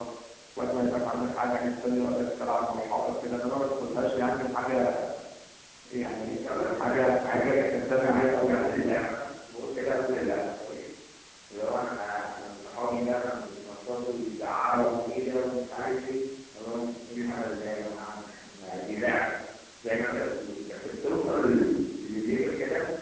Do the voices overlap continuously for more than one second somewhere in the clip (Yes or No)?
Yes